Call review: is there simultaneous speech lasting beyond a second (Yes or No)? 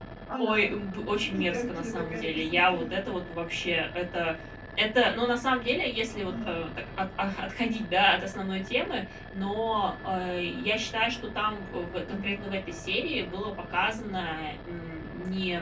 Yes